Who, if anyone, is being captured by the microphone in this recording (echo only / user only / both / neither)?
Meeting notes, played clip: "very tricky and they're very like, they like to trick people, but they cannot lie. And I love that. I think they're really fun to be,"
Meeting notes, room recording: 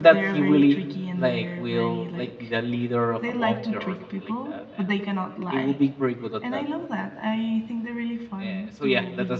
both